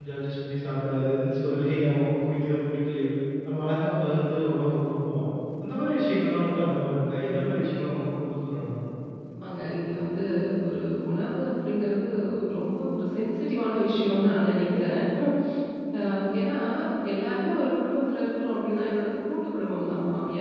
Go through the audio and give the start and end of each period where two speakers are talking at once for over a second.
none

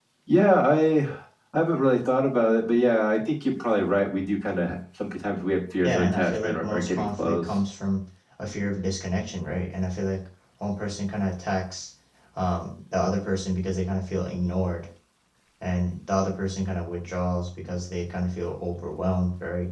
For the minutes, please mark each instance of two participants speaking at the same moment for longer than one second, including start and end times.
5.8-7.6

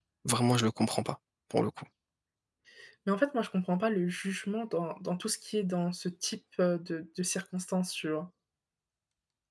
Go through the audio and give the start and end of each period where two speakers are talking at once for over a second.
none

